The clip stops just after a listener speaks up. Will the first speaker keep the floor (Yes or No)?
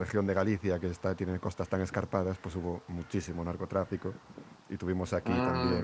Yes